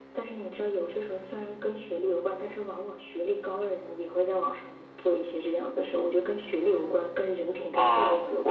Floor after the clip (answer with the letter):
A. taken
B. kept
A